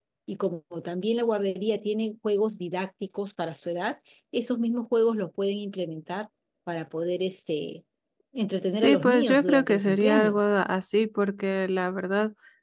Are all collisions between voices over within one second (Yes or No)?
No